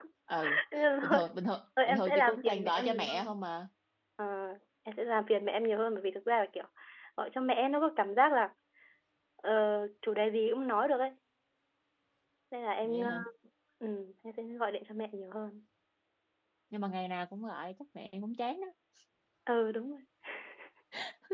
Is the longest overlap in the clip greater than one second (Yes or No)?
Yes